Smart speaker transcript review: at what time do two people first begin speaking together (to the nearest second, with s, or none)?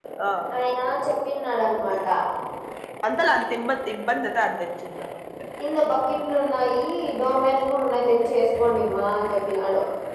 none